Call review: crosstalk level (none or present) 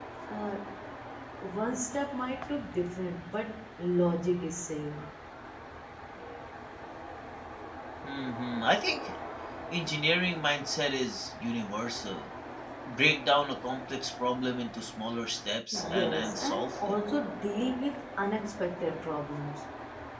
present